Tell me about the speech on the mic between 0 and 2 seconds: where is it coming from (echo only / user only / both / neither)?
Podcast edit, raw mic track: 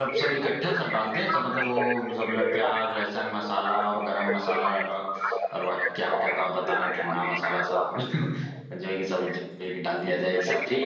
both